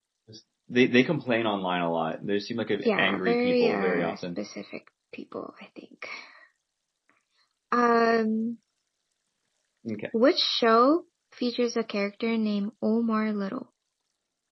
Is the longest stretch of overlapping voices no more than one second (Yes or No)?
No